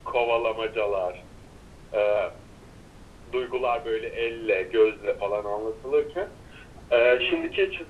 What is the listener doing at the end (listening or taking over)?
listening